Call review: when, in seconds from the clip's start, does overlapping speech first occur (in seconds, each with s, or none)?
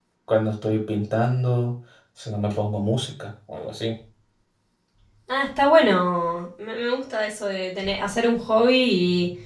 none